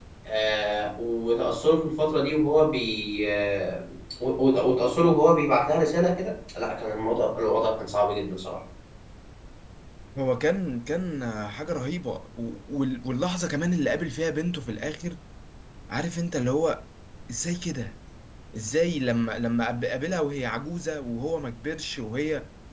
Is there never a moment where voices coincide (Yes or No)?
Yes